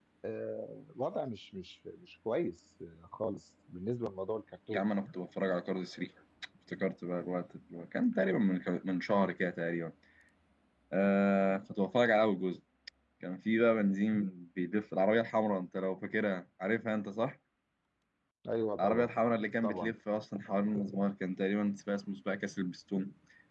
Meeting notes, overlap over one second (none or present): none